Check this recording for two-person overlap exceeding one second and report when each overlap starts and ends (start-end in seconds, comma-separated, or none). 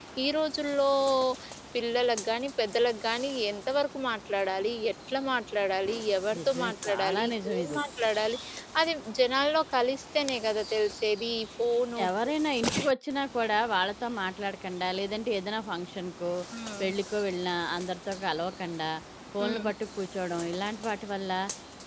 6.4-7.8